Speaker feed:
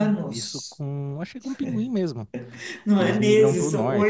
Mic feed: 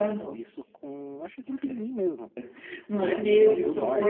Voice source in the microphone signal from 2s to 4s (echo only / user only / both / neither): echo only